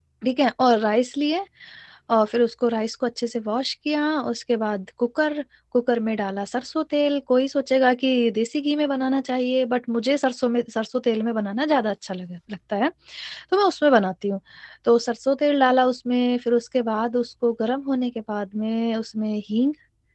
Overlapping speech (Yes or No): No